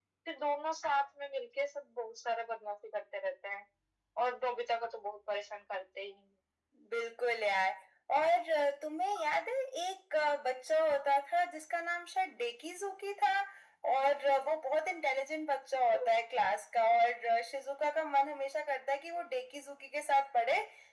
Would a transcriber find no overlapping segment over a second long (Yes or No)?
Yes